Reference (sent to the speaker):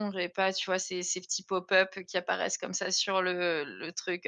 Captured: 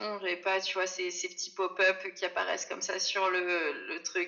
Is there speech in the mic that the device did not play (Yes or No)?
No